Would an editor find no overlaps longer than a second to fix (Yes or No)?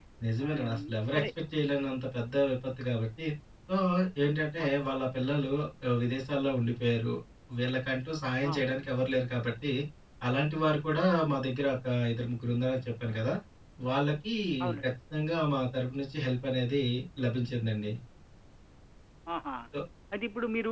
Yes